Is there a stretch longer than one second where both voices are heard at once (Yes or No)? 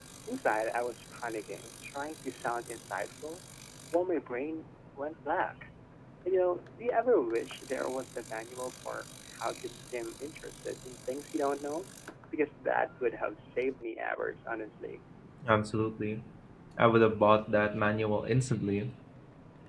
No